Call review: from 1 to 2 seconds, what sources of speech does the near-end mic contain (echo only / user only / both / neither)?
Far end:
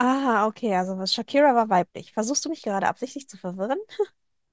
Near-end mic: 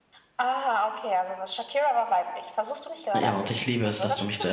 echo only